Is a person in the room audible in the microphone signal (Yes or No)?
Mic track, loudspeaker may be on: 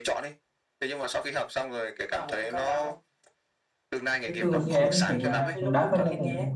Yes